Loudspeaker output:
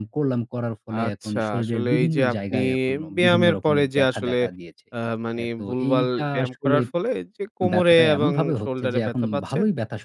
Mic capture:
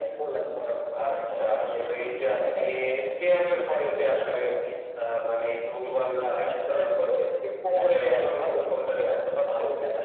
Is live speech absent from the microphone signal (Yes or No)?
Yes